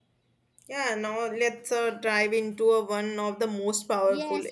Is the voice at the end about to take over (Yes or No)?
Yes